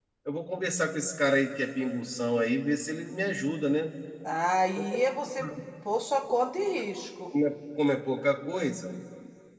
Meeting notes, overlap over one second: none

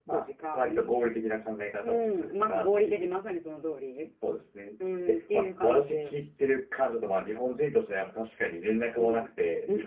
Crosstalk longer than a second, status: present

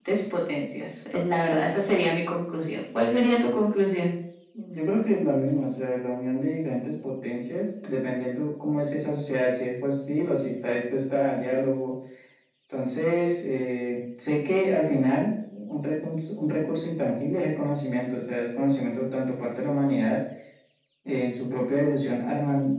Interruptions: none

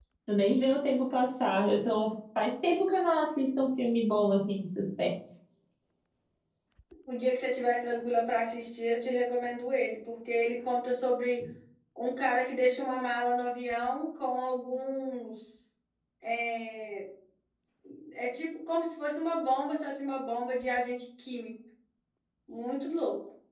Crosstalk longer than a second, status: none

